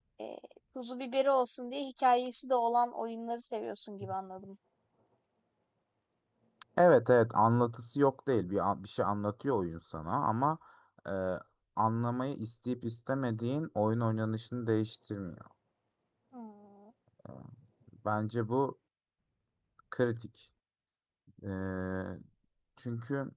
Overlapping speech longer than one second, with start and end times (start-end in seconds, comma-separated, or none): none